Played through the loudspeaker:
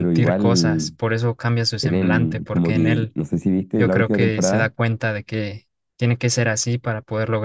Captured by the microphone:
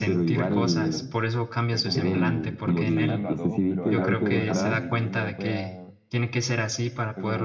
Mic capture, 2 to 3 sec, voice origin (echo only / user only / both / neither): both